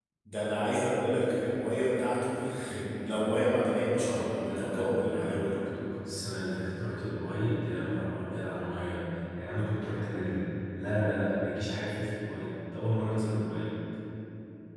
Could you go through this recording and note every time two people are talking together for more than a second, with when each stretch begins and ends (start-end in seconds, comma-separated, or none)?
3.9-5.6